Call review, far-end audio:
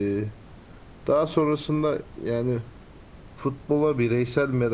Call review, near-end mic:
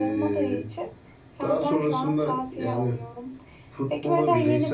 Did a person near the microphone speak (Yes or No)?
Yes